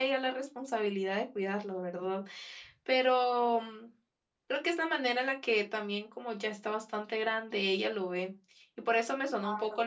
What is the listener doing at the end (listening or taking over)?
listening